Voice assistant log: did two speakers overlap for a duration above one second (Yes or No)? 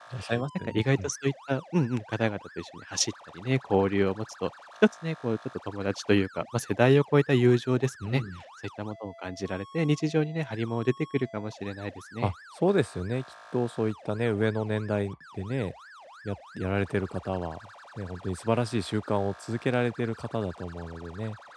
No